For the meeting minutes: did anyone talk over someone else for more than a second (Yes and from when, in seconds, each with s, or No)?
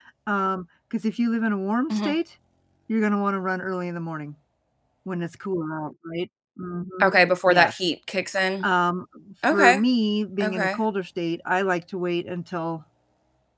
No